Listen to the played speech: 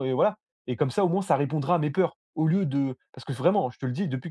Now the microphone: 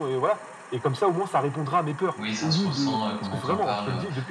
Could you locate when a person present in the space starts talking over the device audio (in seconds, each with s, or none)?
2.2 s